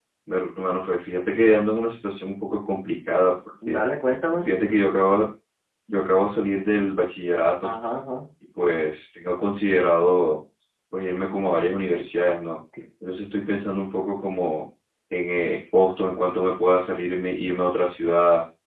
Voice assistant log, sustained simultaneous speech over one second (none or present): none